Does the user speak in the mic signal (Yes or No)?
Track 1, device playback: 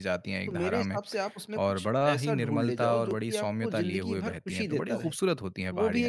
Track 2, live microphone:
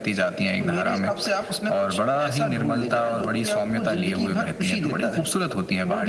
No